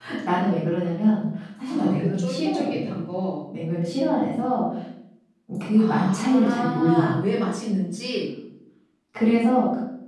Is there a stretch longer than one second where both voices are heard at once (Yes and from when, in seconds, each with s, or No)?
Yes, from 1.7 s